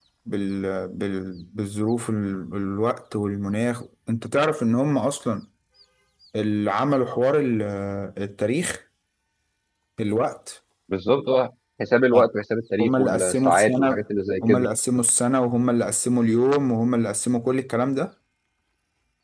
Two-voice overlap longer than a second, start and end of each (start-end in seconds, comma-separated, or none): 12.8-14.0